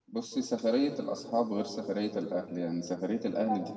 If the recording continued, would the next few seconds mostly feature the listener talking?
No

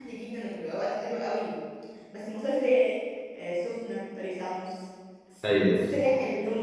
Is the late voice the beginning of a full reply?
No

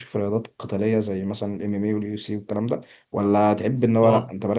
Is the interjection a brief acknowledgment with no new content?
Yes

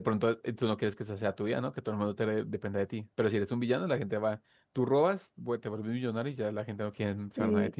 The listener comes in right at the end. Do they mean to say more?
Yes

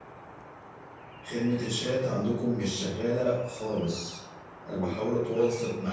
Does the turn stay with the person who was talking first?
Yes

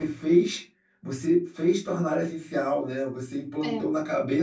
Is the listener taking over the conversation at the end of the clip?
No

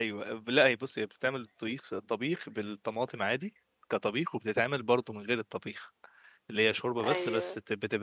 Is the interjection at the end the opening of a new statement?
No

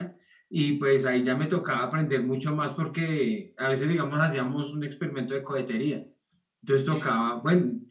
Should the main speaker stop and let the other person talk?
No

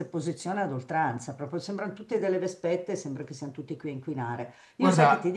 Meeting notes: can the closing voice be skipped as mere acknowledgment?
Yes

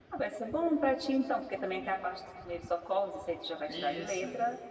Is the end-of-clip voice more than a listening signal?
No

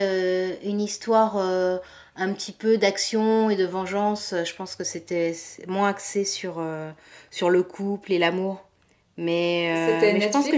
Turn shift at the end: No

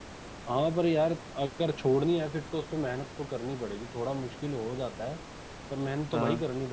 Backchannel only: Yes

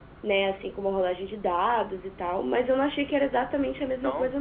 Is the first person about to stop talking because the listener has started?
Yes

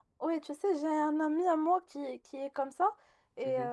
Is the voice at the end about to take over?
No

